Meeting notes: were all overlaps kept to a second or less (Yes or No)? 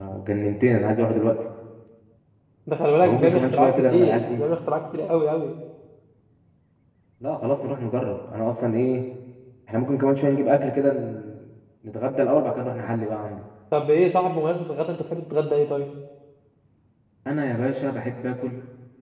No